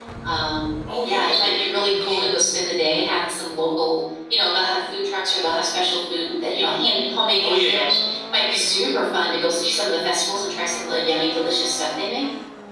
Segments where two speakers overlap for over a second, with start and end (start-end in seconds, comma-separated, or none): 1.0-2.3